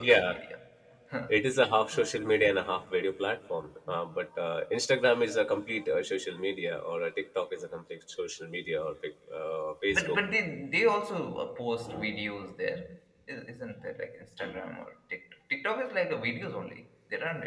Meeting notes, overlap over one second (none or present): none